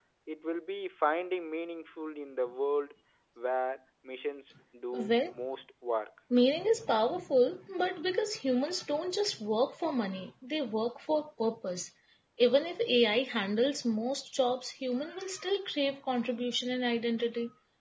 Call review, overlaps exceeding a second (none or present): none